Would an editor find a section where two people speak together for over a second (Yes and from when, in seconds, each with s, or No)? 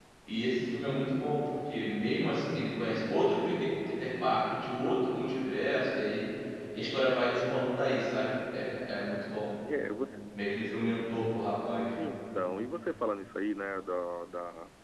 No